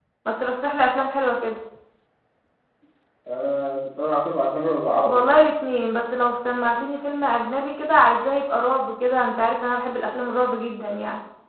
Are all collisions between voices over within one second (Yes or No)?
Yes